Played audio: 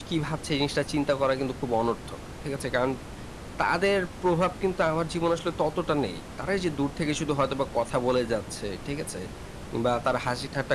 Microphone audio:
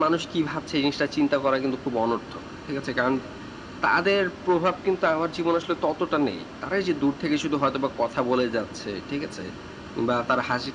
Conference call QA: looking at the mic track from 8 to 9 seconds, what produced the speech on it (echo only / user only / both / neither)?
echo only